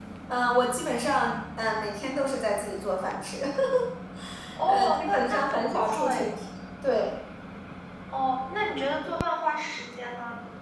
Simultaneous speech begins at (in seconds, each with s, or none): 4.7 s